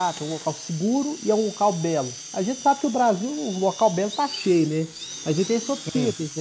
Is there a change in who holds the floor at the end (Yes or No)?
No